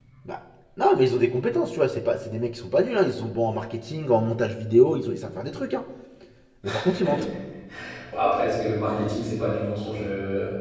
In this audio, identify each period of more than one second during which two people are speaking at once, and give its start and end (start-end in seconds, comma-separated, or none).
none